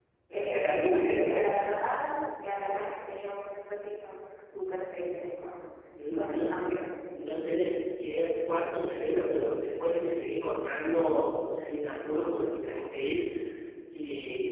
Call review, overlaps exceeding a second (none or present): present